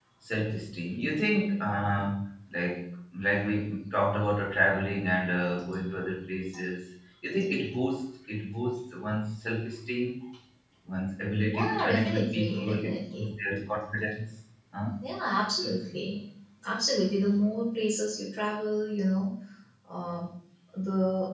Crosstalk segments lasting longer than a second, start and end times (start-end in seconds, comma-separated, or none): 11.4-13.3